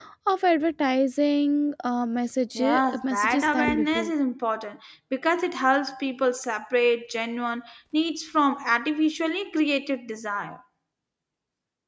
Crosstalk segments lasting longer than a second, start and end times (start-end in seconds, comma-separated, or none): 2.6-4.1